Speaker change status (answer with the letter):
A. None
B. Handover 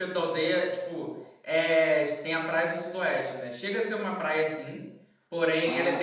A